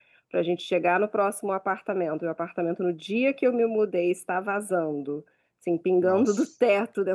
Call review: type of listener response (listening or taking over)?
listening